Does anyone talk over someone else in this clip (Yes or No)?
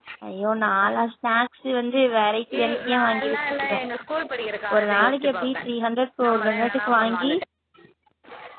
Yes